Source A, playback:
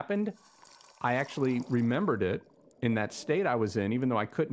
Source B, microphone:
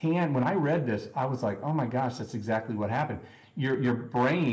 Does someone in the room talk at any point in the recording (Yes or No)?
Yes